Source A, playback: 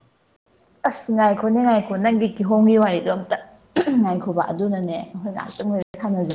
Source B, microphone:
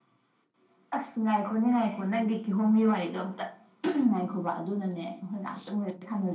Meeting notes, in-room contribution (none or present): none